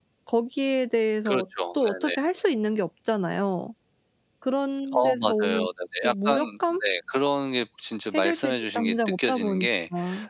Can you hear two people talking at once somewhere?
Yes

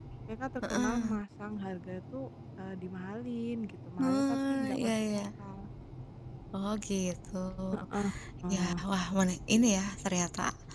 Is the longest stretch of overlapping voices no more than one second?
No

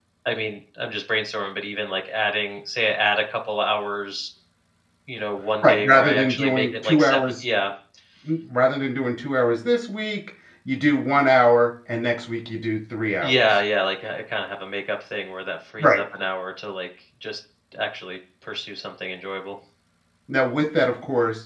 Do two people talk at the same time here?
Yes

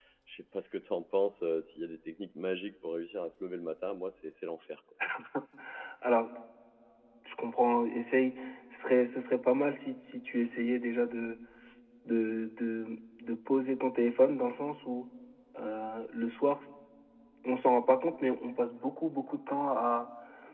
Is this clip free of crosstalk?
Yes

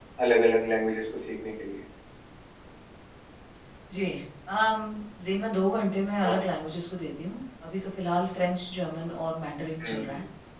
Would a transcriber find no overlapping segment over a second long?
Yes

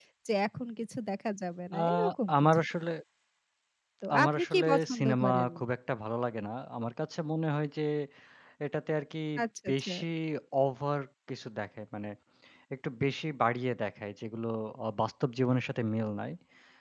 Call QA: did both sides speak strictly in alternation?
No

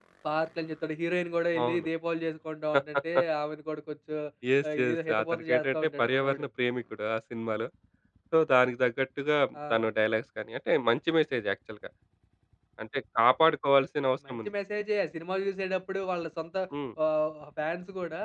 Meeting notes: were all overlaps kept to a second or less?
No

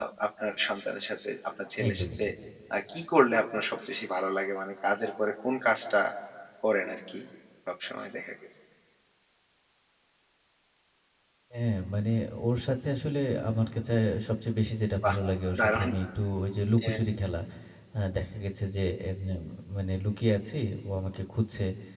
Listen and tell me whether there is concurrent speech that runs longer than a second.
No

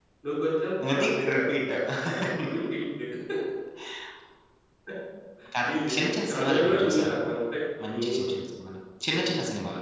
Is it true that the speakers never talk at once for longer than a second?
No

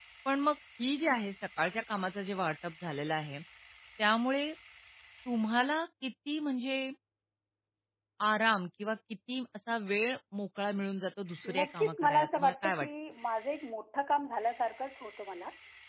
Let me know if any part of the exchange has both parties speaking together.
Yes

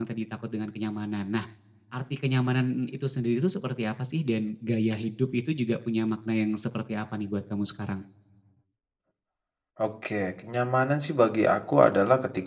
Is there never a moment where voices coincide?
Yes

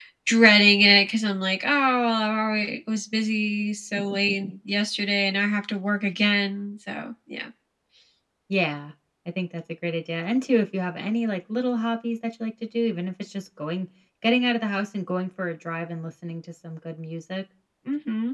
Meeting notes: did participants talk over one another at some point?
No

